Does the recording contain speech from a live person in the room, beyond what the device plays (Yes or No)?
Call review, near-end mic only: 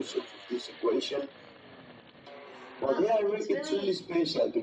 Yes